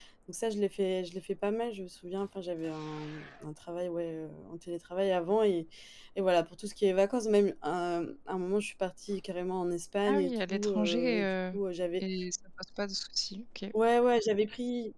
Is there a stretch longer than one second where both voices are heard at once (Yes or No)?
Yes